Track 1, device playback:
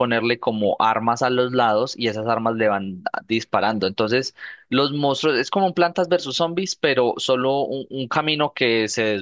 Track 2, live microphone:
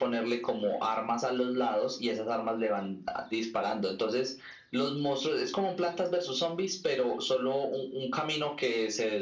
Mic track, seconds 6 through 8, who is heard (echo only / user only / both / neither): echo only